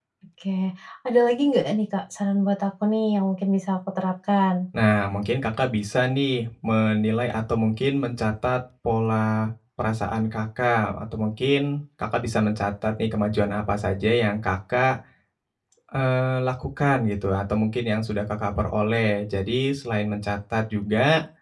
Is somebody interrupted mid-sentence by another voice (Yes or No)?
No